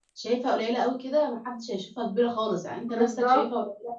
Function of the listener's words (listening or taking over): listening